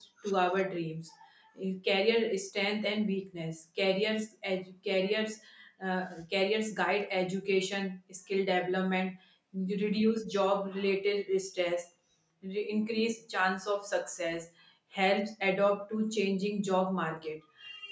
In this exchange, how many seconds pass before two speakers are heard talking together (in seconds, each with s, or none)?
none